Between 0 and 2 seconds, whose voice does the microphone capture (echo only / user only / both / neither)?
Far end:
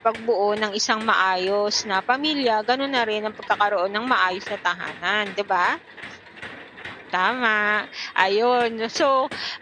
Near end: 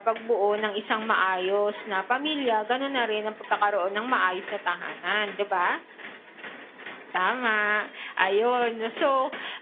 echo only